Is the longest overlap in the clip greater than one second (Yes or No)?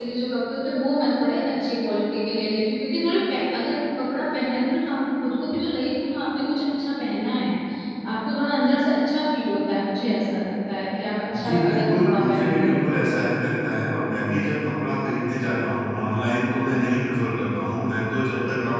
Yes